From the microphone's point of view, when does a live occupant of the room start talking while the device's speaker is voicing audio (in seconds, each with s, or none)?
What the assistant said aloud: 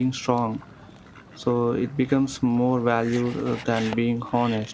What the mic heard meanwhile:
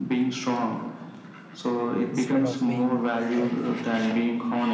2.0 s